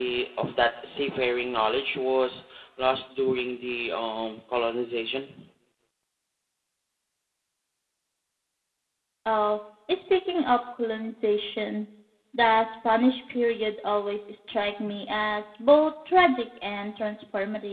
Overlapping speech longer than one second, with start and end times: none

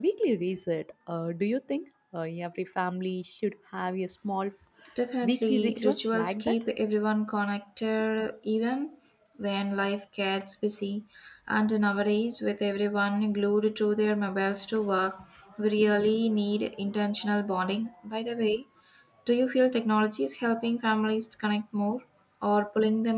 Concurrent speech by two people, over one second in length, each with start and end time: 5.2-6.6

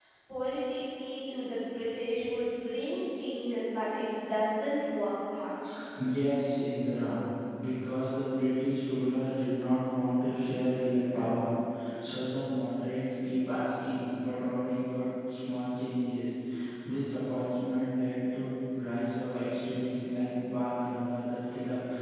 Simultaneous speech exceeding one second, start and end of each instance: none

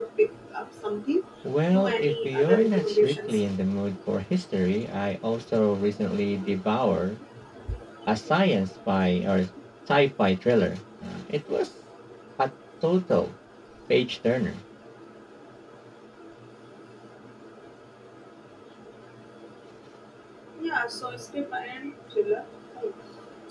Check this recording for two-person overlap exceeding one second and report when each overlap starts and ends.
1.7-3.4

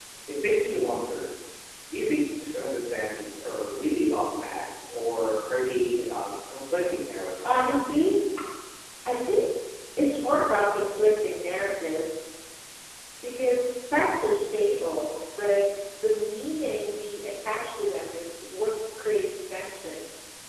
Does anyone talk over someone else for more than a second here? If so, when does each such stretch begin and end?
none

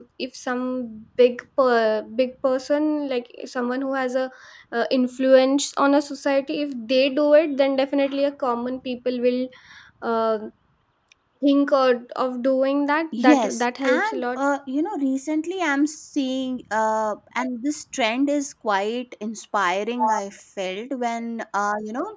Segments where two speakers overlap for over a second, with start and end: 13.2-14.4

